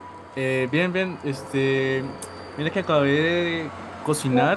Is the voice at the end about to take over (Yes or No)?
No